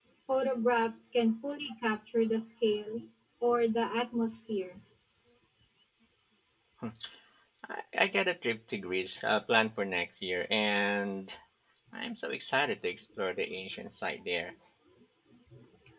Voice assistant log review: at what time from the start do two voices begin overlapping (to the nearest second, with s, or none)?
none